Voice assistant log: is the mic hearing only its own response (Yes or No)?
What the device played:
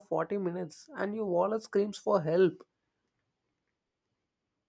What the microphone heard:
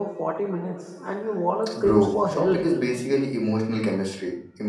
No